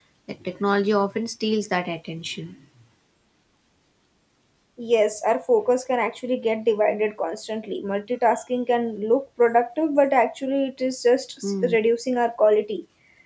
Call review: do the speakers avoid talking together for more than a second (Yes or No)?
Yes